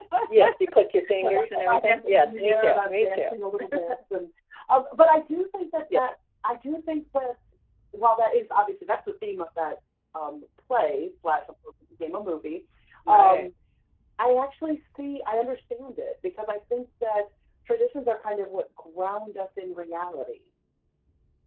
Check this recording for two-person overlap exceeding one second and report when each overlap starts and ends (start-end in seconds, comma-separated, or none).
1.2-3.2